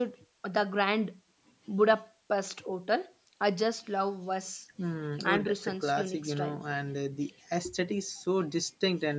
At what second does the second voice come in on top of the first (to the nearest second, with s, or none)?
5 s